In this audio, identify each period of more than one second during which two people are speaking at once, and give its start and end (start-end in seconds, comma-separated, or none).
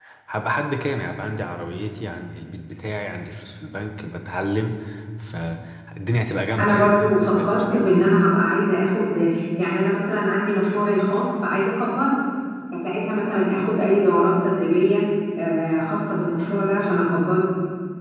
6.6-7.9